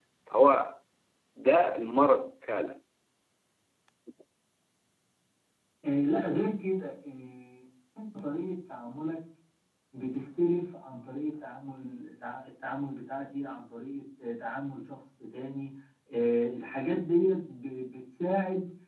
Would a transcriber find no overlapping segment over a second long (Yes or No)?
Yes